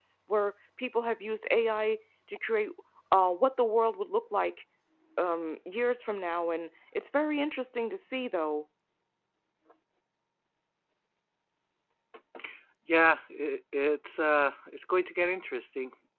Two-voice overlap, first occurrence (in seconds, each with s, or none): none